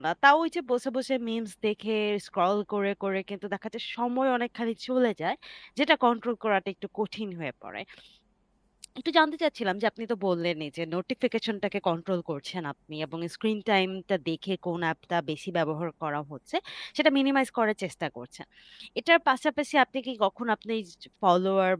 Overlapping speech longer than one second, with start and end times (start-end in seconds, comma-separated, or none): none